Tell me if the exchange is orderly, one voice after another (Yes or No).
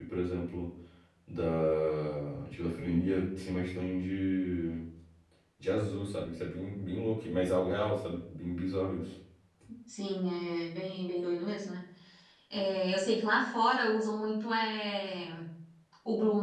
Yes